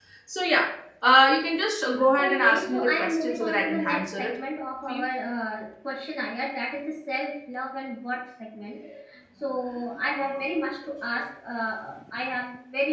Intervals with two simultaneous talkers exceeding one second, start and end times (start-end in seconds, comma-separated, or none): 2.2-4.3